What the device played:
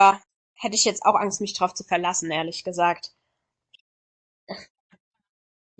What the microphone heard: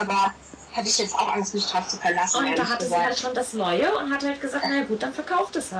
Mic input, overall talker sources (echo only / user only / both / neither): both